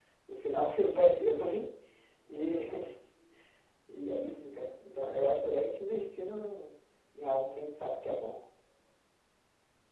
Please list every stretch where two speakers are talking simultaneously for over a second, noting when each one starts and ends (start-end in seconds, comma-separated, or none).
none